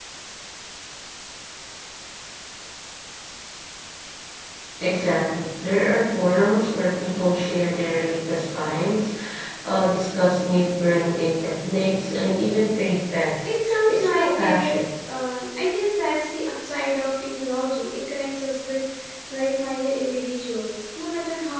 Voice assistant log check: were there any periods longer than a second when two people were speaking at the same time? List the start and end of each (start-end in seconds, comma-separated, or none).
13.5-14.7